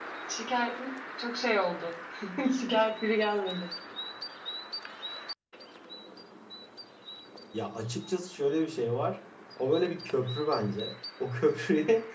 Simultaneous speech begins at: none

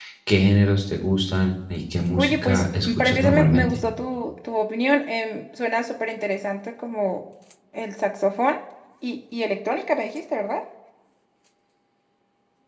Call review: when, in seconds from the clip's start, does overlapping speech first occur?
2.2 s

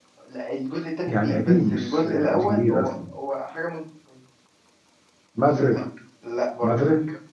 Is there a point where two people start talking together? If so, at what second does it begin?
1.1 s

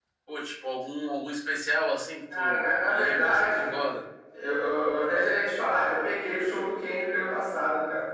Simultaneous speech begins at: 2.3 s

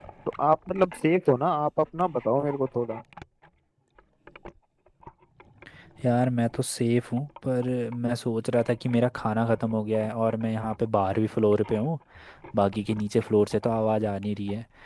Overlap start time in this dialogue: none

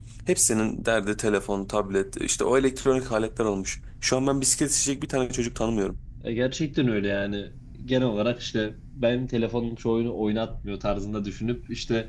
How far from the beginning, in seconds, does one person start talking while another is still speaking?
none

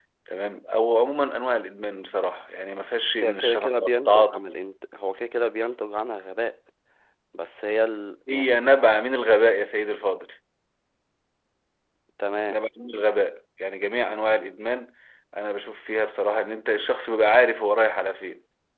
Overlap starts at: 3.2 s

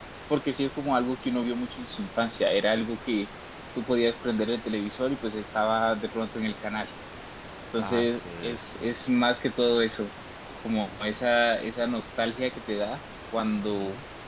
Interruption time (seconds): 7.8 s

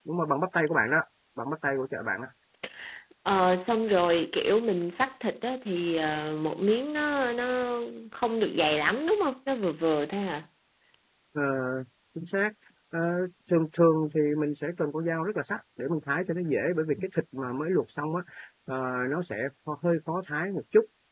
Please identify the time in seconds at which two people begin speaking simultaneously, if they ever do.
none

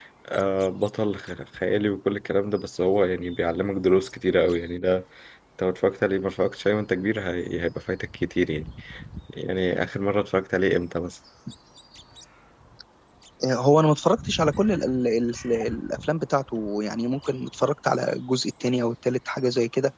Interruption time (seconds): none

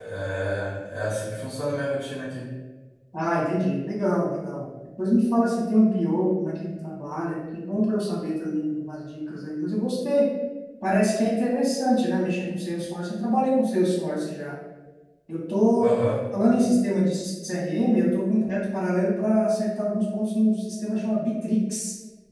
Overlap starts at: none

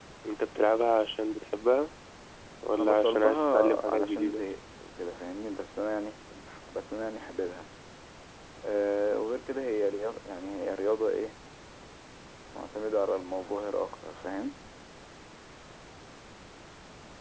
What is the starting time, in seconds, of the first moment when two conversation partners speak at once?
2.8 s

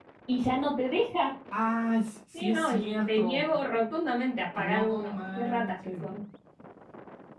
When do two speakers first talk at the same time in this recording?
2.3 s

